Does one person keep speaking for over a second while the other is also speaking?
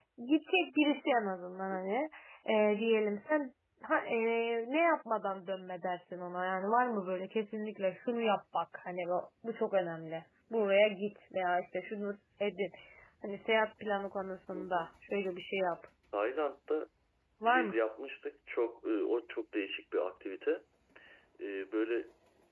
No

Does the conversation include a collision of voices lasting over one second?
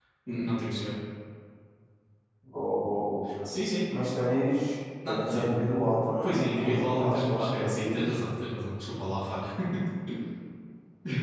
Yes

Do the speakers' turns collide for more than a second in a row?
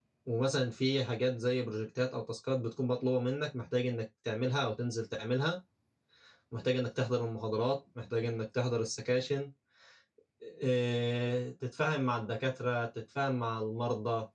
No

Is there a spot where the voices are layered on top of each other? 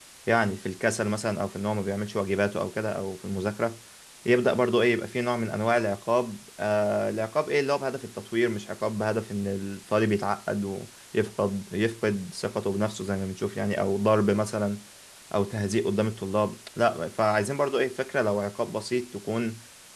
No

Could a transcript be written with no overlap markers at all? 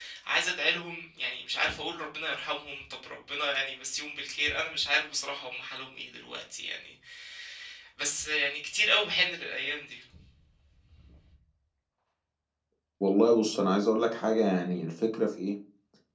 Yes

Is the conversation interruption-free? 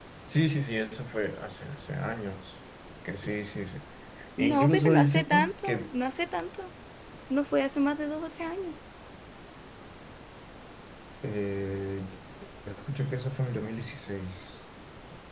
No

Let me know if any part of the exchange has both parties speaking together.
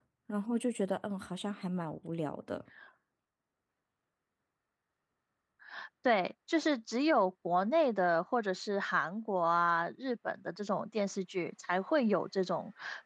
No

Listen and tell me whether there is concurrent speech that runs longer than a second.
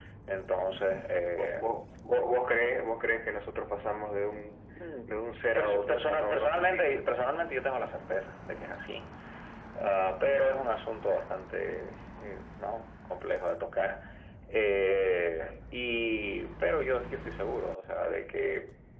Yes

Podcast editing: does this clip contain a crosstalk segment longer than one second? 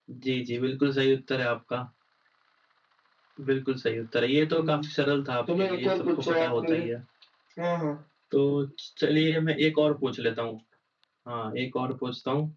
Yes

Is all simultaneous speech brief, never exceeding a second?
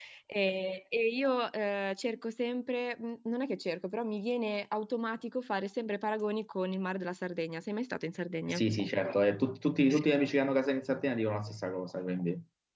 Yes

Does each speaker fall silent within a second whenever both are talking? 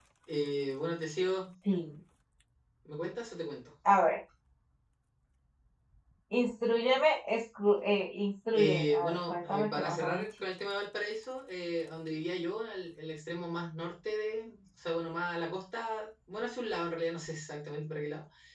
No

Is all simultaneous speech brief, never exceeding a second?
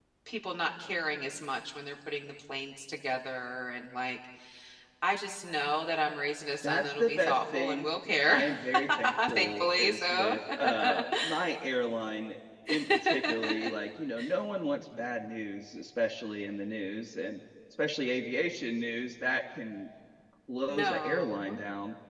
No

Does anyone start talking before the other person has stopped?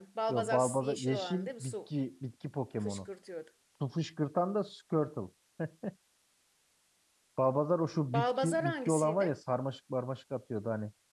Yes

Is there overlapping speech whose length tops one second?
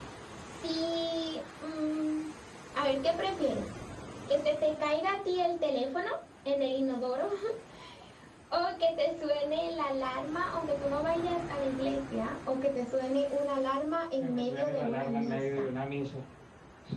Yes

